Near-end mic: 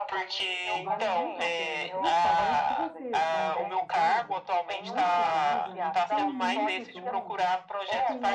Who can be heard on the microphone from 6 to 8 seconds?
both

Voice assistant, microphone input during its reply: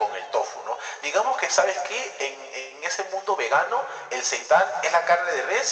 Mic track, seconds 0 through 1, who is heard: echo only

